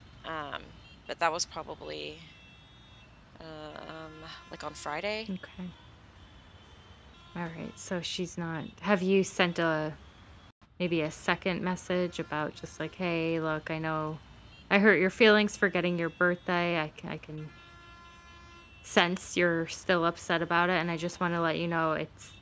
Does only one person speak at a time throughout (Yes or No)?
Yes